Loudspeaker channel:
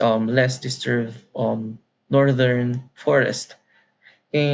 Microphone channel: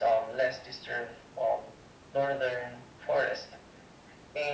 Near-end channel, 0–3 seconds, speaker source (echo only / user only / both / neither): echo only